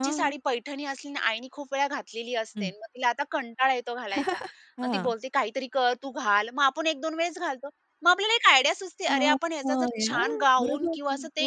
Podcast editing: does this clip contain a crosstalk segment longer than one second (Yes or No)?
Yes